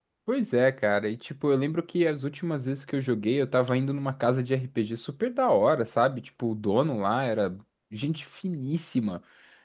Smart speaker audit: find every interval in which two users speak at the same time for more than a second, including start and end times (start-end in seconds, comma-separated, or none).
none